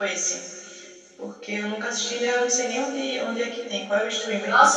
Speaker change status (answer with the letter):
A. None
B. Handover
B